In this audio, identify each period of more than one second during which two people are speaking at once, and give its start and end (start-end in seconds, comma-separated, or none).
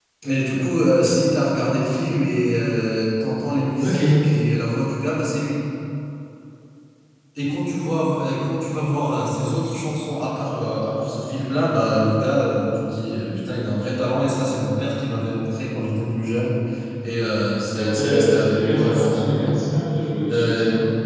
17.7-19.6